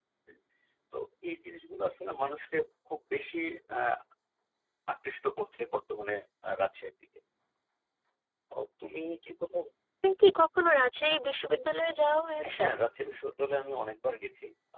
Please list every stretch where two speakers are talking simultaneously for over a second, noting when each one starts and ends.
none

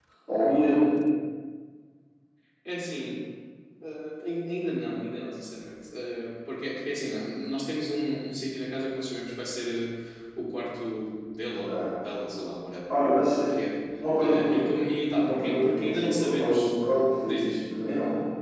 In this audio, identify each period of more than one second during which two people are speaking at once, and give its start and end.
15.2-16.7

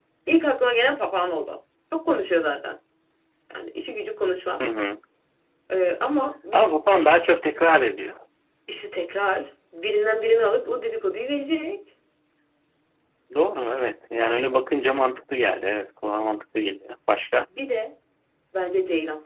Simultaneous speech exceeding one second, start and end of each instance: none

